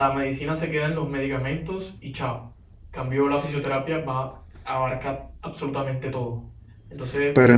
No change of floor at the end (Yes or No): No